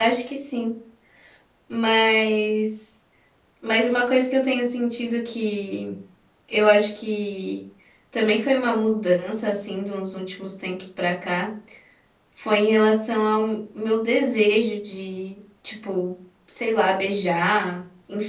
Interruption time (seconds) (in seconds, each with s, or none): none